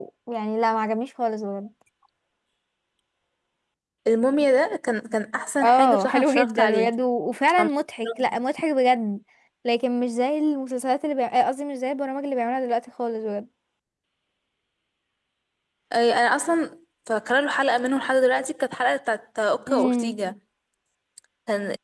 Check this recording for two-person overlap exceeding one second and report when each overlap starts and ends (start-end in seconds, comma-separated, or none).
5.6-6.9